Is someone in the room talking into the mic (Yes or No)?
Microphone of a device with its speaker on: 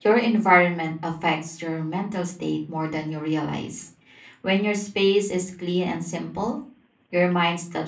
Yes